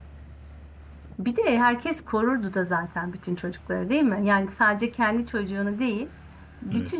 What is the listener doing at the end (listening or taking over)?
listening